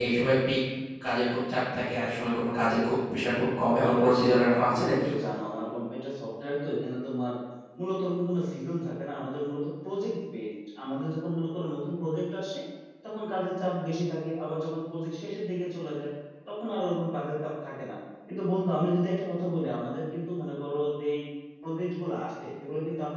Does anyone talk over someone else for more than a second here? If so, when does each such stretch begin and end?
3.8-5.1

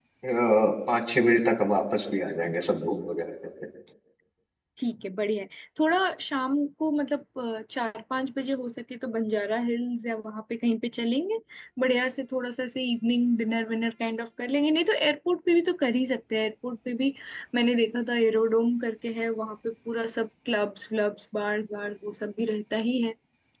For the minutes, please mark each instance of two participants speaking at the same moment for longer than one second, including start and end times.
none

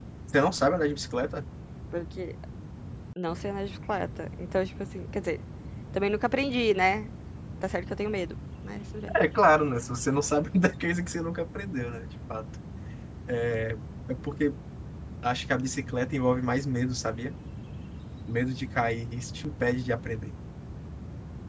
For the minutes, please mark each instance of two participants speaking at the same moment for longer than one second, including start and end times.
none

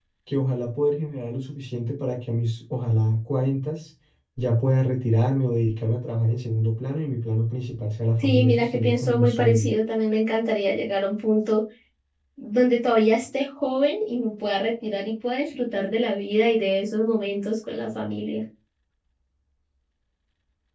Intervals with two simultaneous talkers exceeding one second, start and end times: 8.2-9.7

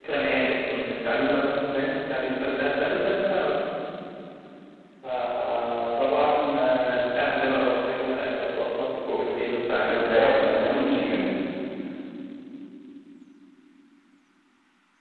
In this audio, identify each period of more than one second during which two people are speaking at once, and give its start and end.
9.9-11.2

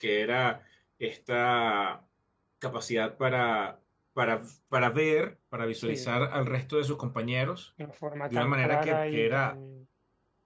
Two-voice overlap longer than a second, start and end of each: 8.3-9.5

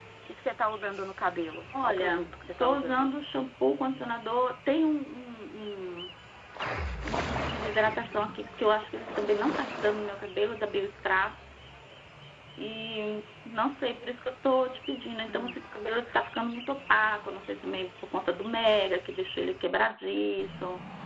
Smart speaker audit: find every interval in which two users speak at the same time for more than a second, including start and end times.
1.8-3.1

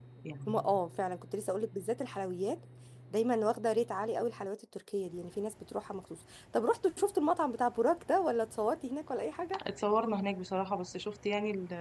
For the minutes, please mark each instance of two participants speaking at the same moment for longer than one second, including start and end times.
none

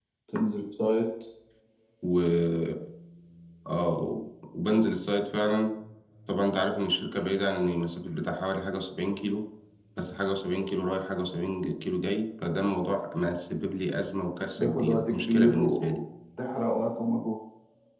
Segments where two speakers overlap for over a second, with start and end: 14.6-16.0

